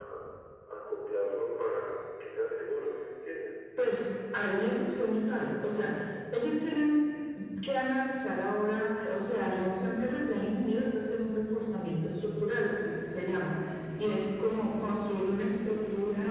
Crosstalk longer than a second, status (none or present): none